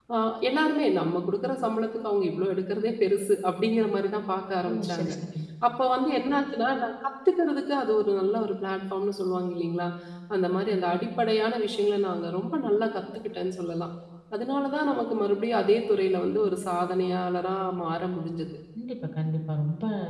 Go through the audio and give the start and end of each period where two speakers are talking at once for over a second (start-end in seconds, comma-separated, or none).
none